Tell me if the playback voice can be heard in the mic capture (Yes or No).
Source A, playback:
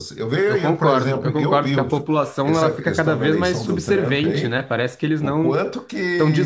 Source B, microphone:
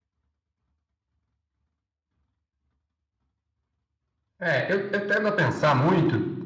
No